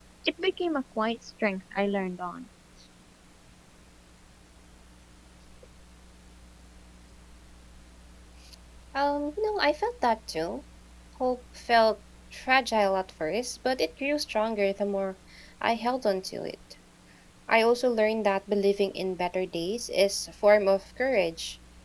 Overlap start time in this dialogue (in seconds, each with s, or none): none